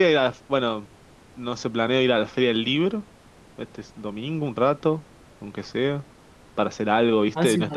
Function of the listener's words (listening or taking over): taking over